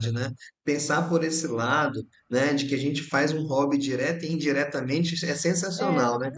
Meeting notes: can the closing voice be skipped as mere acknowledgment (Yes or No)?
Yes